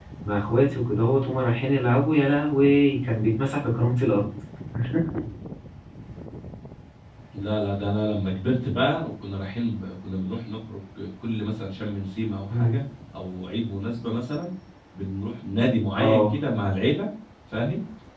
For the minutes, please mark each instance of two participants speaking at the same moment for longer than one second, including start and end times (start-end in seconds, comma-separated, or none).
none